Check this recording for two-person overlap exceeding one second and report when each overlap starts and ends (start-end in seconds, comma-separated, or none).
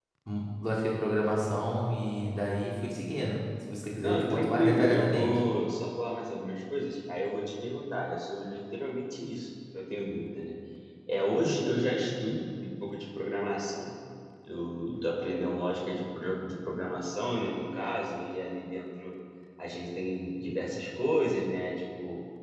4.0-5.3